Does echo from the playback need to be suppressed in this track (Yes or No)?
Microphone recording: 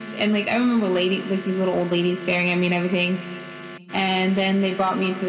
Yes